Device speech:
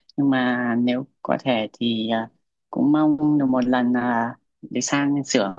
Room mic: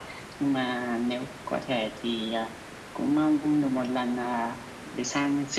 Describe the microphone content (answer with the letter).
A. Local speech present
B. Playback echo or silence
B